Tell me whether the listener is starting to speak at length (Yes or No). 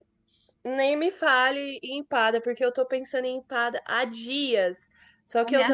No